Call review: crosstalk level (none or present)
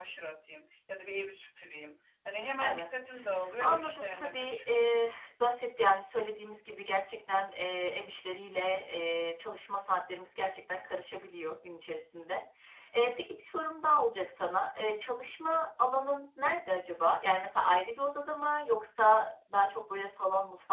present